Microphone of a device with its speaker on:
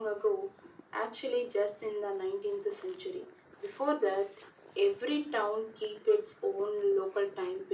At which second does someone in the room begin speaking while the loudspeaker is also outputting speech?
none

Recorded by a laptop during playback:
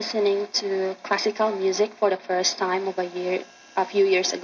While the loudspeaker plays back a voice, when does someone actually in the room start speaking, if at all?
none

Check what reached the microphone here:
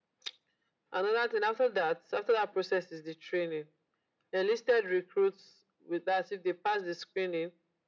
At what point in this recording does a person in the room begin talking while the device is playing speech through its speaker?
none

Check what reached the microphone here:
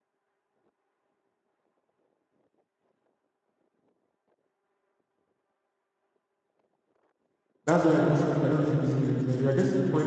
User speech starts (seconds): 7.6 s

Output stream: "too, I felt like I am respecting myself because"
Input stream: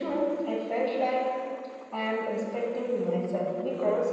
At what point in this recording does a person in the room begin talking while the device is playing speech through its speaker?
none

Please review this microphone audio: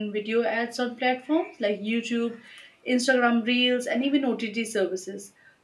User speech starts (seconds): none

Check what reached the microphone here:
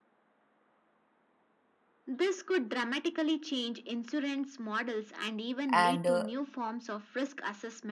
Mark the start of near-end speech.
5.7 s

